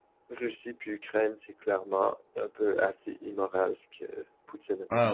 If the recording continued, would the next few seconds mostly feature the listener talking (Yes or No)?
Yes